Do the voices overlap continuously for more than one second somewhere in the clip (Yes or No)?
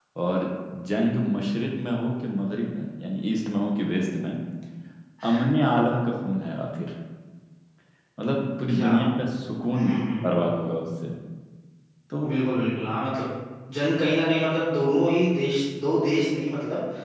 No